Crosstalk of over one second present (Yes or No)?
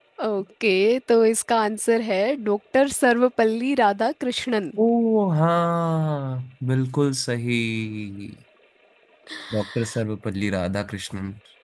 No